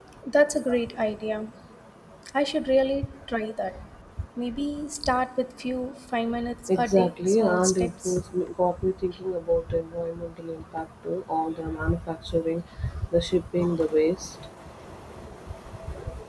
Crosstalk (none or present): present